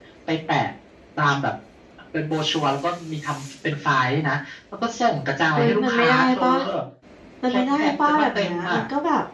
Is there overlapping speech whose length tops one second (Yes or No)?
Yes